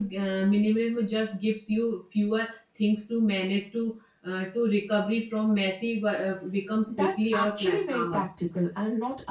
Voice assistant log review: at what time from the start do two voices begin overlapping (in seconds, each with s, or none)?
6.9 s